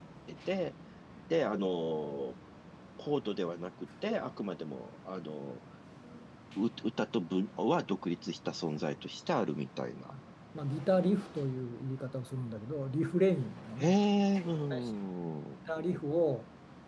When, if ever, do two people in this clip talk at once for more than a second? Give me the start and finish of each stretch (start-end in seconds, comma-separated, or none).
none